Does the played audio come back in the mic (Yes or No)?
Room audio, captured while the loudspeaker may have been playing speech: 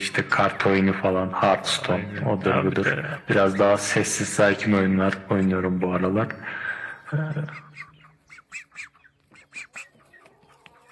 Yes